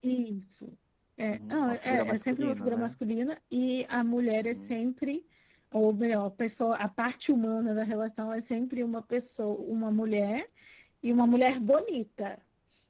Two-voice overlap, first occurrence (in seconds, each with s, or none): 1.3 s